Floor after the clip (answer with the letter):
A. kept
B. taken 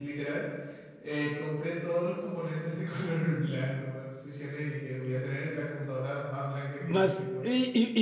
B